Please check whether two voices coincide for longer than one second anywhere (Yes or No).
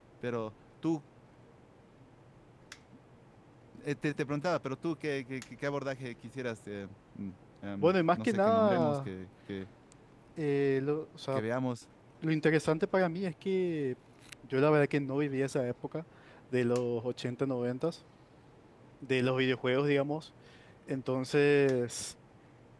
Yes